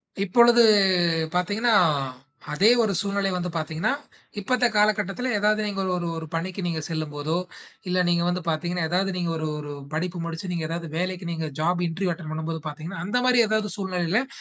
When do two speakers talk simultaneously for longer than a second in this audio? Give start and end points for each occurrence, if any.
none

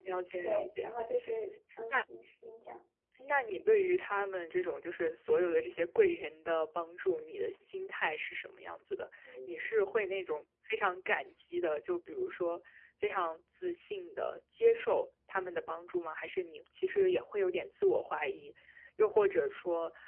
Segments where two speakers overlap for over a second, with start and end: none

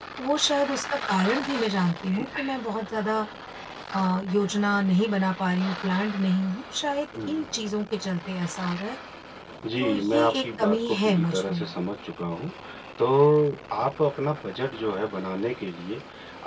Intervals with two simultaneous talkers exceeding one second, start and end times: 9.8-11.7

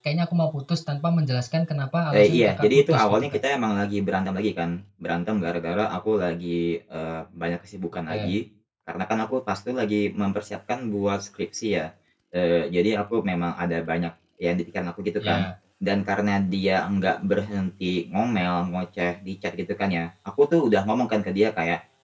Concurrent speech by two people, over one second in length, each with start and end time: 2.1-3.4

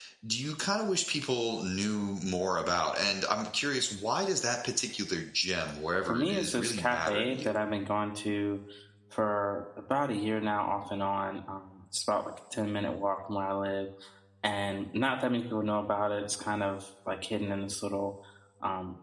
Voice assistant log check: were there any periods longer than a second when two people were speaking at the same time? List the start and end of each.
6.1-7.5

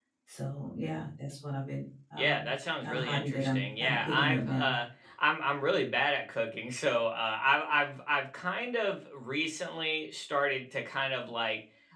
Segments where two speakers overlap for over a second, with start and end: 2.8-4.8

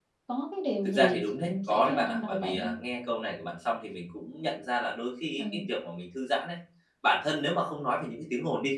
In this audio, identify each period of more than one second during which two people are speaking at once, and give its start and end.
0.8-2.8

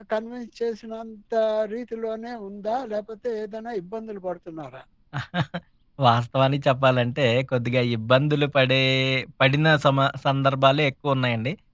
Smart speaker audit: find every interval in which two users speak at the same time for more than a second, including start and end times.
none

